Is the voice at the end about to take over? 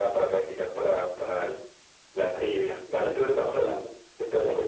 Yes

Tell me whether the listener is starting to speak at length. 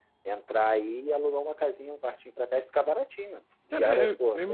Yes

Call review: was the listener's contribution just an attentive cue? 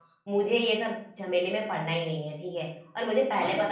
Yes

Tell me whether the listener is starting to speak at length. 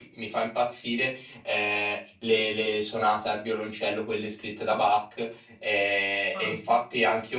No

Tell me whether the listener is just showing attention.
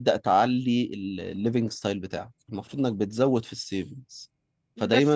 Yes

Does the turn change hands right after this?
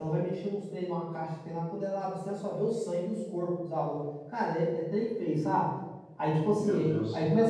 No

